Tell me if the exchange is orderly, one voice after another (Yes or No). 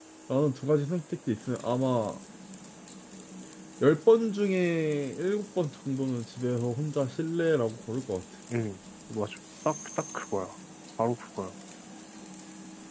Yes